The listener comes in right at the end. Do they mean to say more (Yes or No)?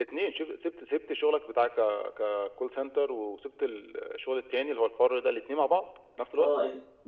Yes